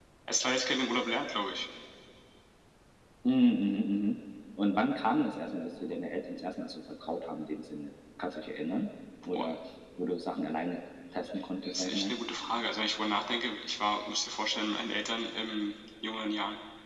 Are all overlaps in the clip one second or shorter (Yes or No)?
Yes